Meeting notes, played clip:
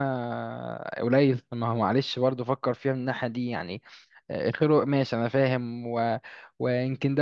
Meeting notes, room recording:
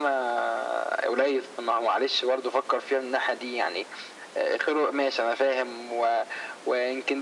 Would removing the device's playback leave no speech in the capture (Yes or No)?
Yes